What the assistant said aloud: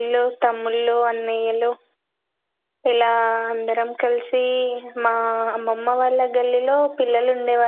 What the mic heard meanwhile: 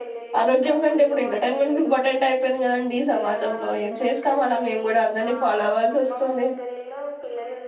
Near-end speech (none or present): present